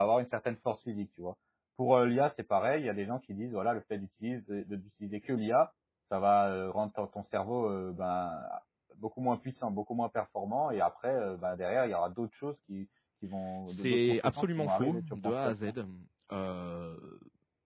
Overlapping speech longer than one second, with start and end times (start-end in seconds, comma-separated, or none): 13.7-15.5